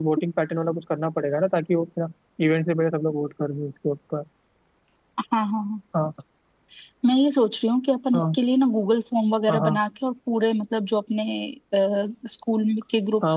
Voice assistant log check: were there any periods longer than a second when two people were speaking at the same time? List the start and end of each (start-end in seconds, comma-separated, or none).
none